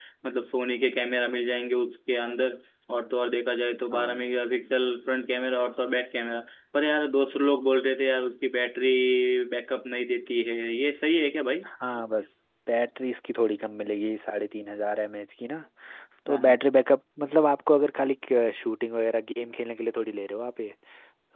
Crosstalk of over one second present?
No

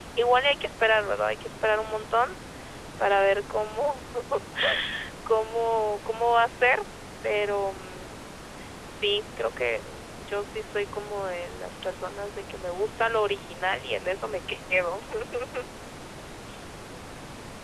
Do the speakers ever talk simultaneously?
No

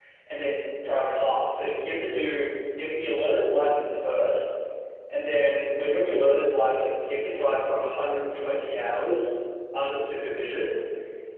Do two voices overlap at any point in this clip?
No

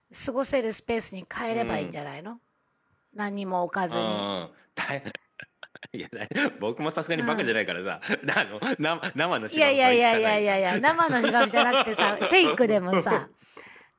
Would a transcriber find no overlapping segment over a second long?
No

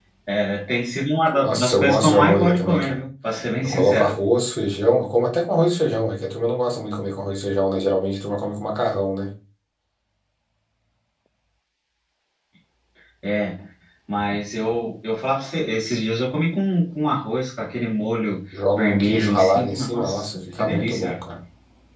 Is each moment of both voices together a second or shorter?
No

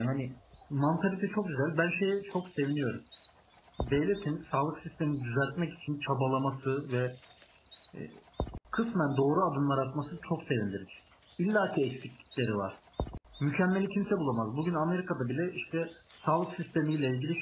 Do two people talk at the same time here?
No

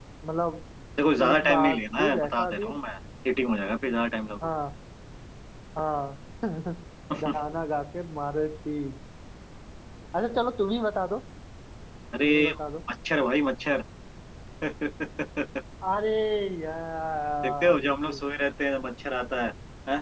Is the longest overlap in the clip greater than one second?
Yes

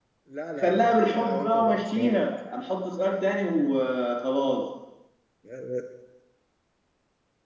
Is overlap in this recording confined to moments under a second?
No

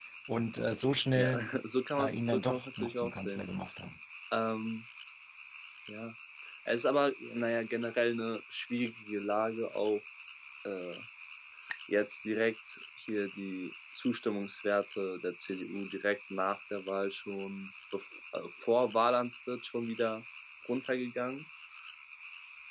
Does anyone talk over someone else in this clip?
Yes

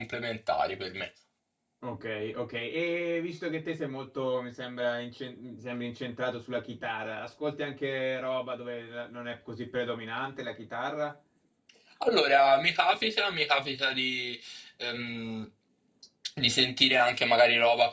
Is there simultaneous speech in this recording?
No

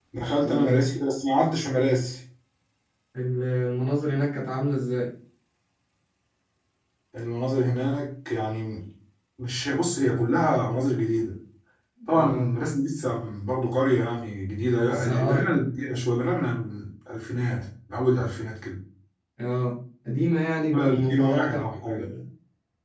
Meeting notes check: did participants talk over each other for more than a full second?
Yes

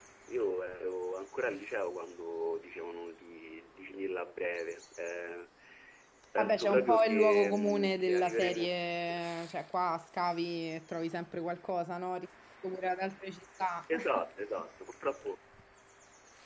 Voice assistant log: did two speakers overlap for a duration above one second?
Yes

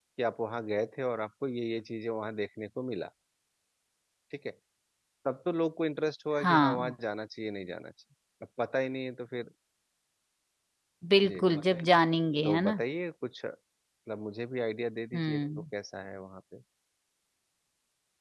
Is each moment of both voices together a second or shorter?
Yes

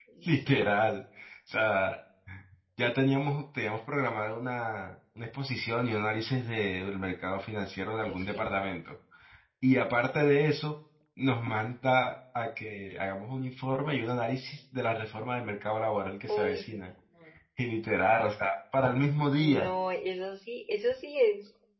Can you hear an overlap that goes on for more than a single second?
No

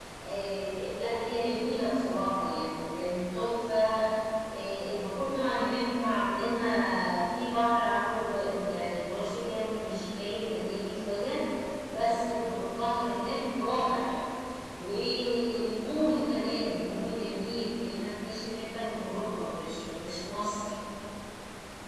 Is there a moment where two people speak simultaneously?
No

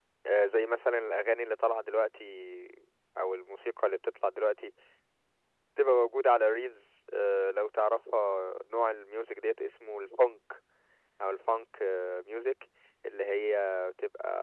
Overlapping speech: No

